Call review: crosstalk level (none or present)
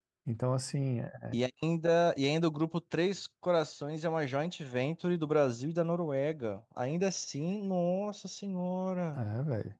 none